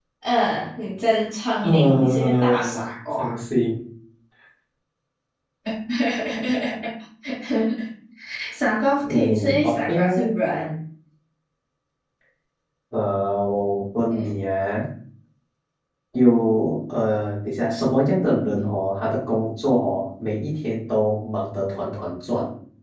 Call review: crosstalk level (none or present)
present